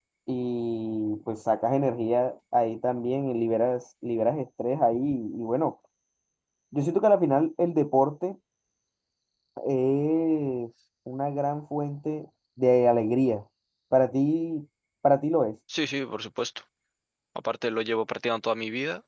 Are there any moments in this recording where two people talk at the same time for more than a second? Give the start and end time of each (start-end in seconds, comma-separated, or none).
none